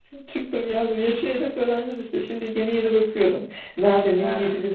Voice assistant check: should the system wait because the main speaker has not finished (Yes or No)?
Yes